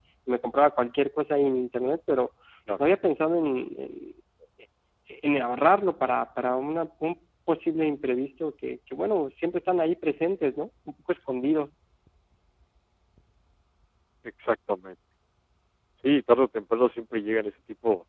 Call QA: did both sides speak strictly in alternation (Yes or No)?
Yes